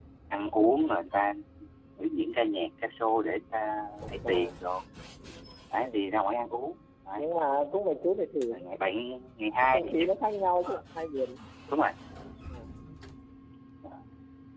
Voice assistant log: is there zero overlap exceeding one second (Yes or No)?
Yes